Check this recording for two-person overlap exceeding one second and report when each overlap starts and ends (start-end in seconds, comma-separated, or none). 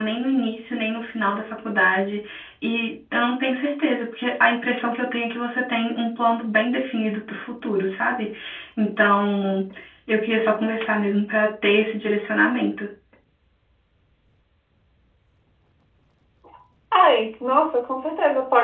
none